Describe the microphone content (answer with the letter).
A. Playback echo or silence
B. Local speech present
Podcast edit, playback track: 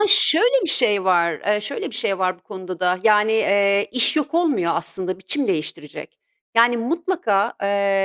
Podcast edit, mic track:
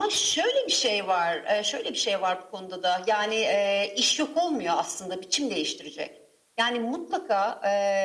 A